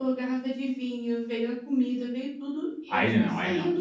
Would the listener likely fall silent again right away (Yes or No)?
No